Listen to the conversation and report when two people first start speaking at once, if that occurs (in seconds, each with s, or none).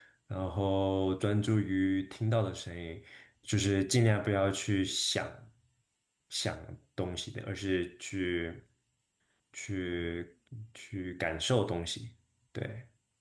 none